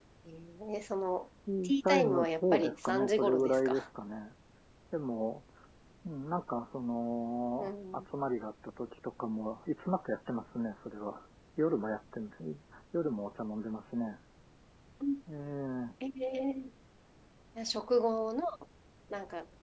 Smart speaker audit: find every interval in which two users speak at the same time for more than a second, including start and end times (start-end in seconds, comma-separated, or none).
1.6-3.8